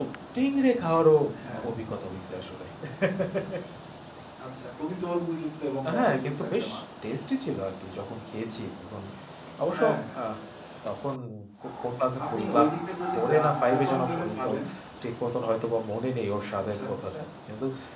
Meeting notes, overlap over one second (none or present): present